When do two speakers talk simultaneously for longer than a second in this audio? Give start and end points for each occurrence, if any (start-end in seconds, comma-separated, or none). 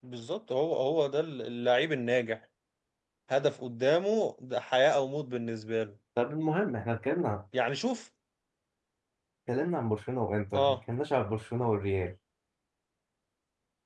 none